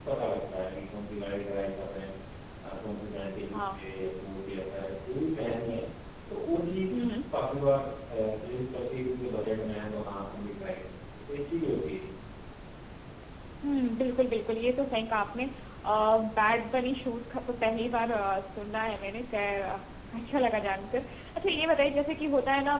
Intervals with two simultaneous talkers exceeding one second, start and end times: none

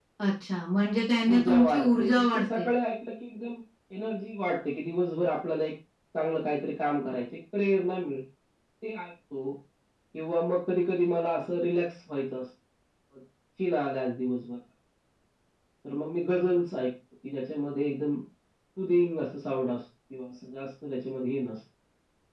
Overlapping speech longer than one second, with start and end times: 1.3-2.6

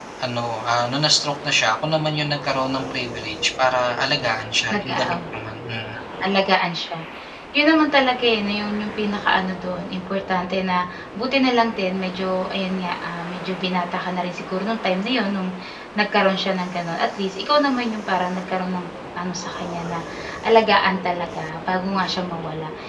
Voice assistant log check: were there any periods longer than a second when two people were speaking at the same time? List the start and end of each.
none

